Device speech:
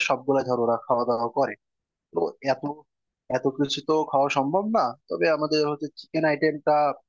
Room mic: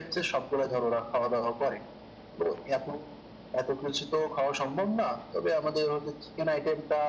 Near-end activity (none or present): none